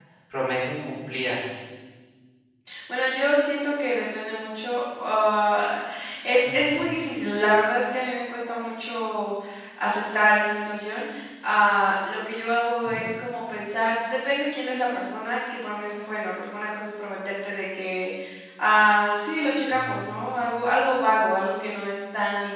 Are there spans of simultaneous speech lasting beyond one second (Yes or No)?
No